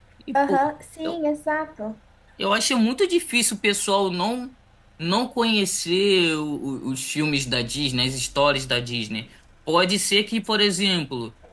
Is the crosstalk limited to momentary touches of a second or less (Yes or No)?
Yes